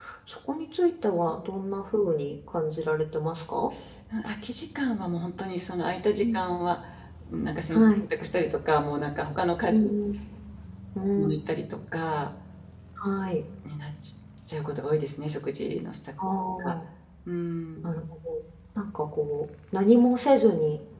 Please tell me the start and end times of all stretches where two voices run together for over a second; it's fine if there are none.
none

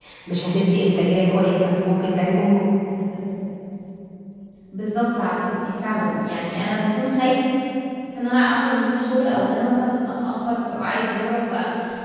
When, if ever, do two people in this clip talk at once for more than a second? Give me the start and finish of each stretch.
none

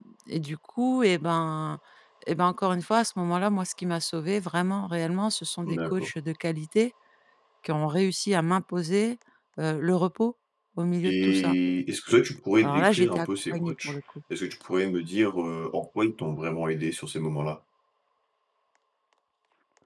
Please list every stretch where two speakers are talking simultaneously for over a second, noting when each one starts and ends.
12.6-14.0

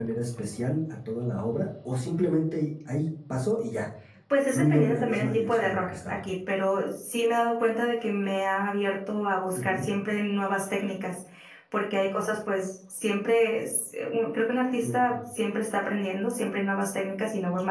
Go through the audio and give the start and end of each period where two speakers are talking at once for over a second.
4.5-6.2

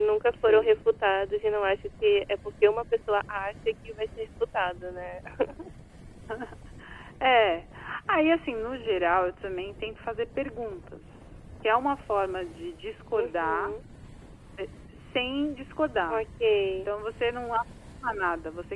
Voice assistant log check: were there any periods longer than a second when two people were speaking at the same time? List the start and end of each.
none

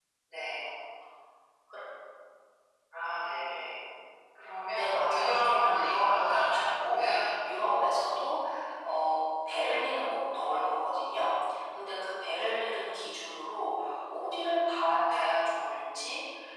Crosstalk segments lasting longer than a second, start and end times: 4.7-7.2

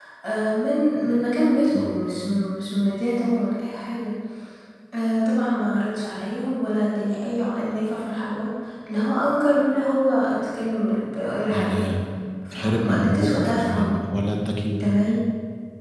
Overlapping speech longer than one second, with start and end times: 12.5-13.9

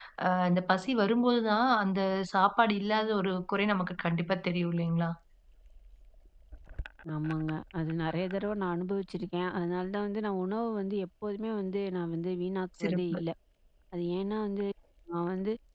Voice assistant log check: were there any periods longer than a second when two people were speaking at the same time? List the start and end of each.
none

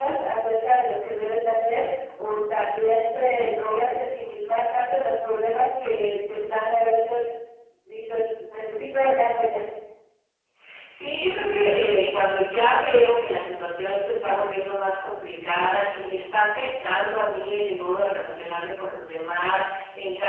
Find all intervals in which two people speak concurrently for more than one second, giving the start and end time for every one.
none

